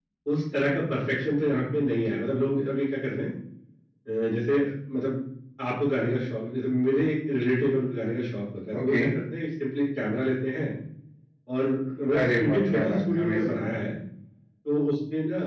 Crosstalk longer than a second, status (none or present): present